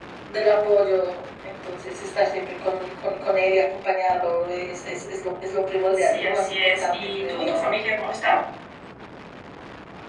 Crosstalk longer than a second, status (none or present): present